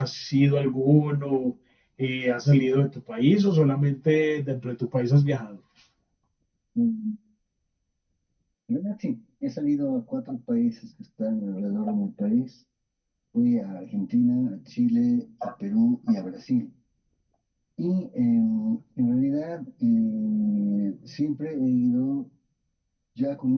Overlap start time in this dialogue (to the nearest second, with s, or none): none